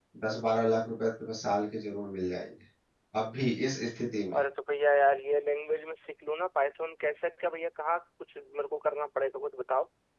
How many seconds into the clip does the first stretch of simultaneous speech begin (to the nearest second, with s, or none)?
none